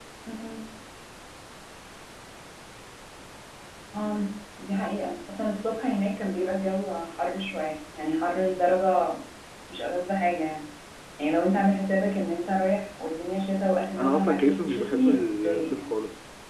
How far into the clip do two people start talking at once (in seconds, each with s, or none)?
14.0 s